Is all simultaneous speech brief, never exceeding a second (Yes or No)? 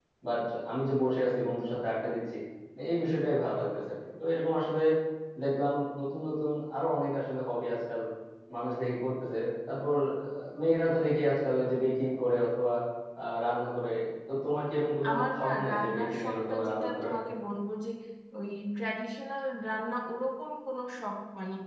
No